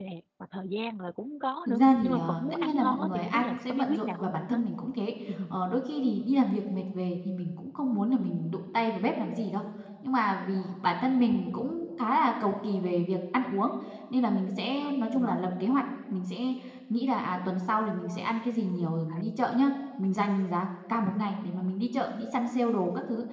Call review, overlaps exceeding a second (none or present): present